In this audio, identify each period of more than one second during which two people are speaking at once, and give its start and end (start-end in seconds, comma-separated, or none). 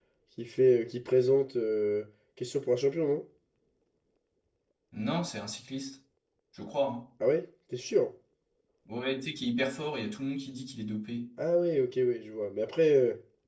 none